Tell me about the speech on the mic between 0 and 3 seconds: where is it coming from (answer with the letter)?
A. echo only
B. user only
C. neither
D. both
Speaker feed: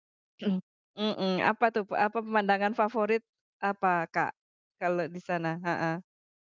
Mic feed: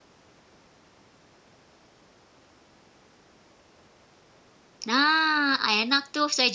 C